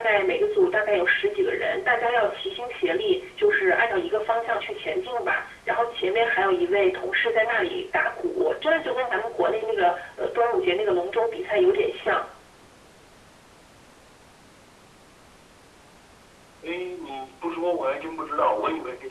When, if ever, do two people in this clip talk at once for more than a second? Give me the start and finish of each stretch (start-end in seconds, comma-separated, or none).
none